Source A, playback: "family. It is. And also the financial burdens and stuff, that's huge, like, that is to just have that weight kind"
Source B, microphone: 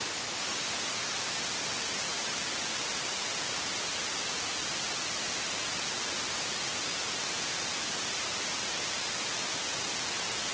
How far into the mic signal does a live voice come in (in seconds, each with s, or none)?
none